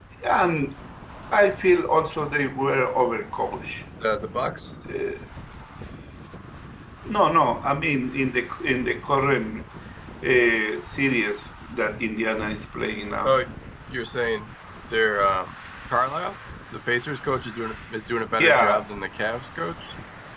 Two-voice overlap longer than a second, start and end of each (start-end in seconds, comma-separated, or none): none